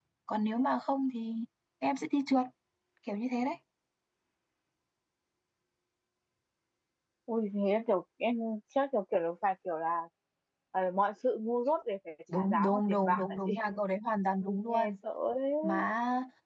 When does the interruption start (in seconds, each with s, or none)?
12.3 s